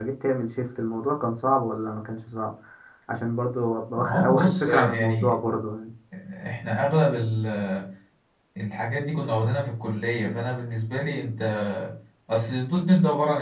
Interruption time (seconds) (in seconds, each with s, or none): 4.0 s